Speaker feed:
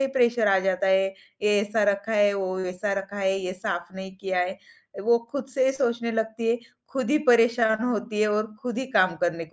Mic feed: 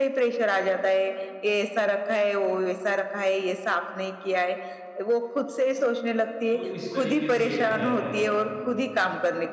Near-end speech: present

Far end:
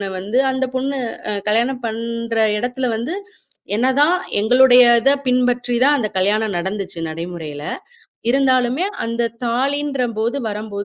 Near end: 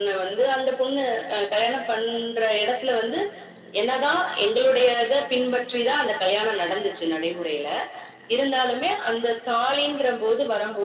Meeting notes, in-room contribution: none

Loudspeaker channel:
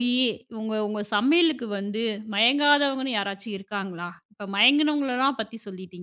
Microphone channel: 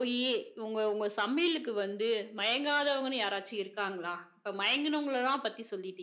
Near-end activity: none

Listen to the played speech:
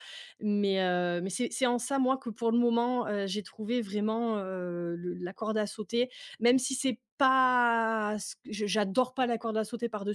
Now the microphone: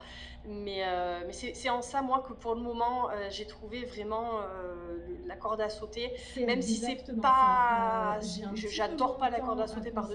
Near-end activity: present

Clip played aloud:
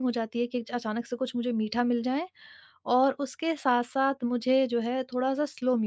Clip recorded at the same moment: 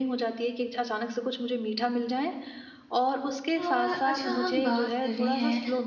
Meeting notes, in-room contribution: present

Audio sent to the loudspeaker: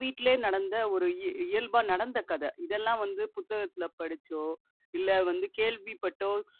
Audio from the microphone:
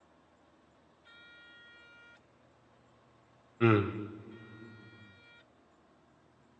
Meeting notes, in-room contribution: present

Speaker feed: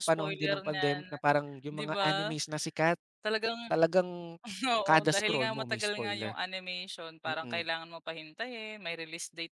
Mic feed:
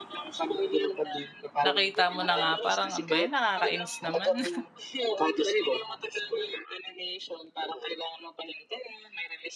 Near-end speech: present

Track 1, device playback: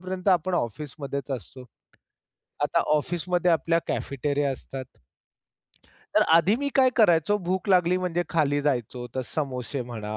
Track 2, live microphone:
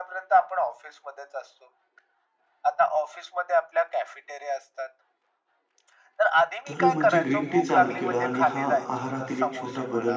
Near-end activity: present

